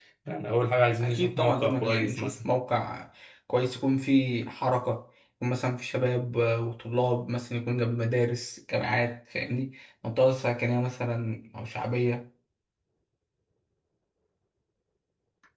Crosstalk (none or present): present